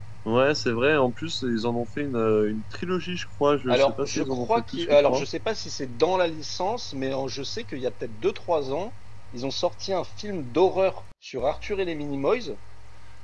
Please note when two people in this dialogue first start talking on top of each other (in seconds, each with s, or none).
3.7 s